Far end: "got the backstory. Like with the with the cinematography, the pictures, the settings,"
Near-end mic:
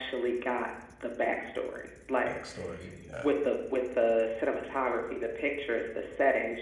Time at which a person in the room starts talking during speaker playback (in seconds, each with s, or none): 2.2 s